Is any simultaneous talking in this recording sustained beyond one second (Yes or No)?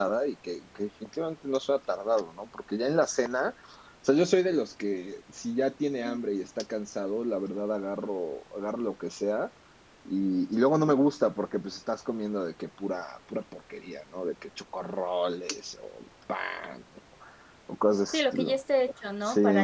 No